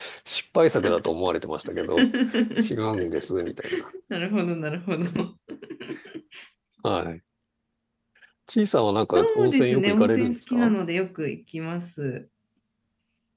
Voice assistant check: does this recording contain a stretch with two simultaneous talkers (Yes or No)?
Yes